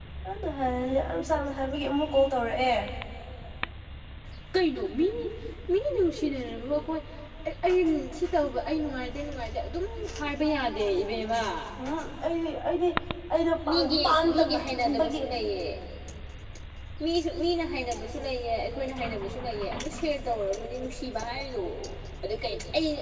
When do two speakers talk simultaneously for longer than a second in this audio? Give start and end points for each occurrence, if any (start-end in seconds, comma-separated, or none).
13.7-15.2